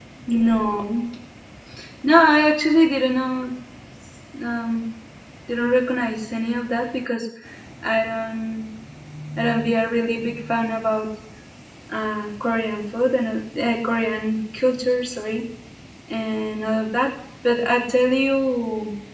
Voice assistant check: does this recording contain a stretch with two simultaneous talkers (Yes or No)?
No